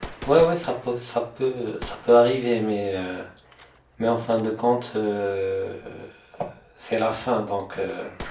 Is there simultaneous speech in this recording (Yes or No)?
No